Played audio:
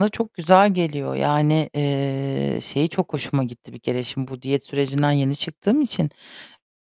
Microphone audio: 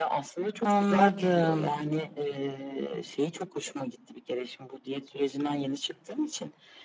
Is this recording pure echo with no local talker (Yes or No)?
No